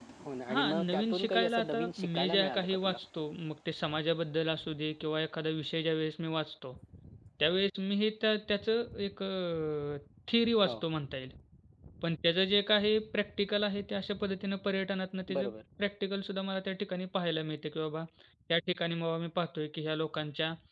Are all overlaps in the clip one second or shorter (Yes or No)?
No